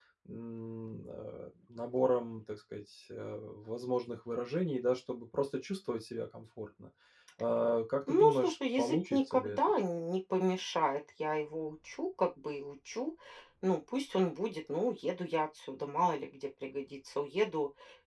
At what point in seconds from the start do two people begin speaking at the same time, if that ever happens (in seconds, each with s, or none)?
8.1 s